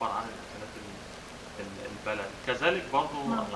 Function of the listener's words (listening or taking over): listening